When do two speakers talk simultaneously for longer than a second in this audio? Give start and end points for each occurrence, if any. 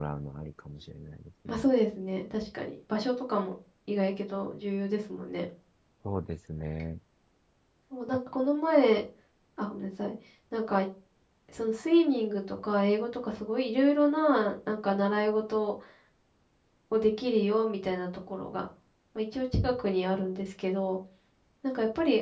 none

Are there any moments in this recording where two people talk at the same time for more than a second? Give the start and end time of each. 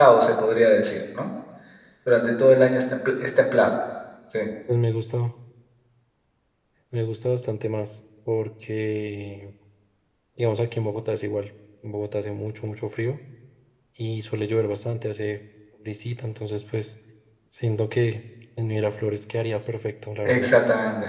none

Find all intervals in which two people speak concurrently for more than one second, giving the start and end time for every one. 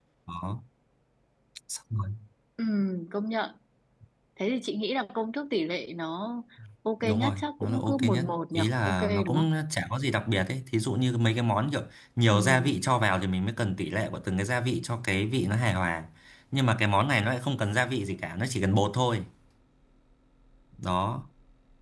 7.0-9.5

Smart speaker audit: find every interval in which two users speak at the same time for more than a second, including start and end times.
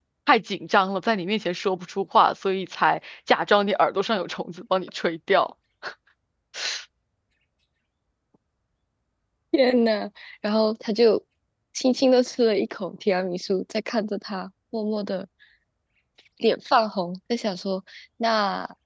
none

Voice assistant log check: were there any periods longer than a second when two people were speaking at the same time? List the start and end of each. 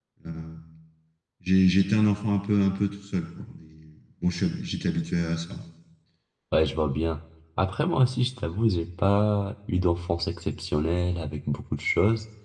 none

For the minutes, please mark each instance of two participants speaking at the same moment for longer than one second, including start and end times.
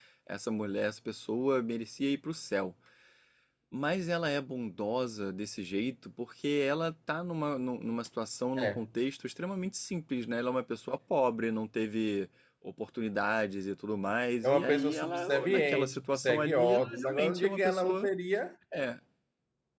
14.4-18.1

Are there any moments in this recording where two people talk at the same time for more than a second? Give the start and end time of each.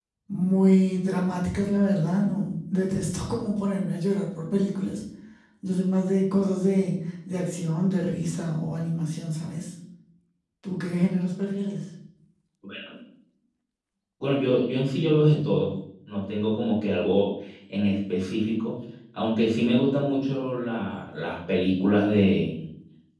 none

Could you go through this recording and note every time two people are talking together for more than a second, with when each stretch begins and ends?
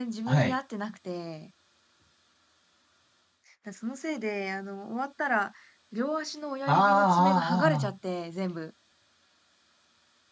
6.7-7.9

